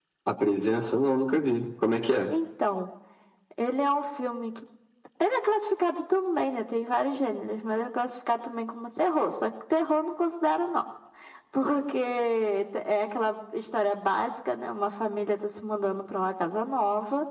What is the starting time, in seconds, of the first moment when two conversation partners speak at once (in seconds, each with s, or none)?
none